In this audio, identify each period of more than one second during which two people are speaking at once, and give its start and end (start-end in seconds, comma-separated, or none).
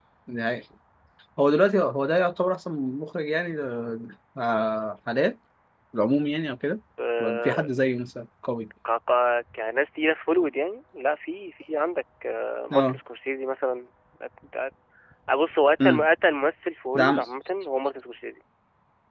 none